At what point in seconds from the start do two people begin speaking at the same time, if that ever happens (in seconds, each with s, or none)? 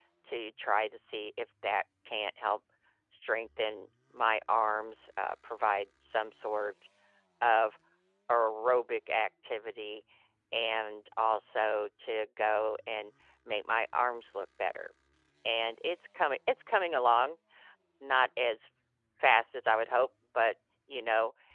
none